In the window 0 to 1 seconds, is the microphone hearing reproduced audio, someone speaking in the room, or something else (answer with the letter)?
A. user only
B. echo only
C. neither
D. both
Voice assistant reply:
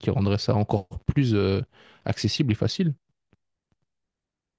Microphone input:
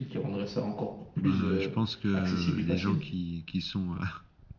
B